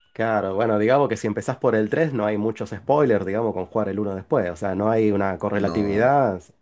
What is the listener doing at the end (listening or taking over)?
listening